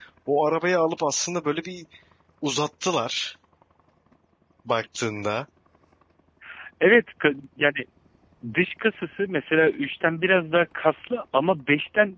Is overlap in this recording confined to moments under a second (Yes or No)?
Yes